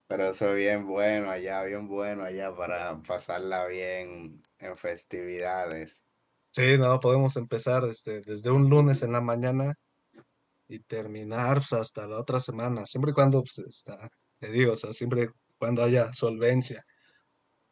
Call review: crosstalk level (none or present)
none